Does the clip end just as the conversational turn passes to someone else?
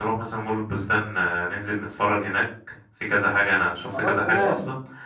No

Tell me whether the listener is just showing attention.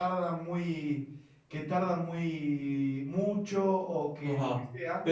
No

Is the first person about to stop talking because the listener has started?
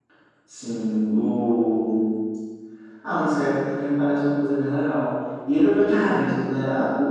No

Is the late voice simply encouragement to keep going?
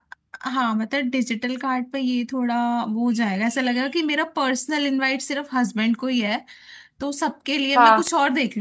Yes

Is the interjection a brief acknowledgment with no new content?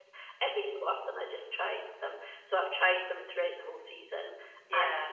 Yes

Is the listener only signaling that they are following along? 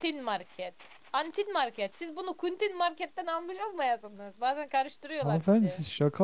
No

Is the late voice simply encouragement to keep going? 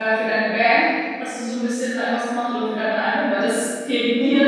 No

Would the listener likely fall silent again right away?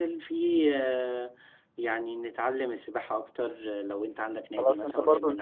No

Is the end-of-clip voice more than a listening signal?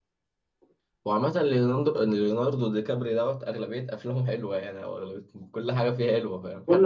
No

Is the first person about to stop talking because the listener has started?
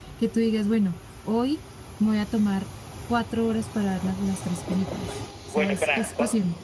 Yes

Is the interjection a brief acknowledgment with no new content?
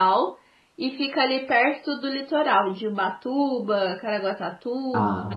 Yes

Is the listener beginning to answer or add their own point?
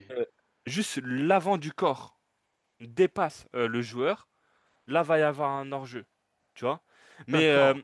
No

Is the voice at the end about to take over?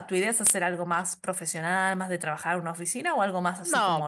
Yes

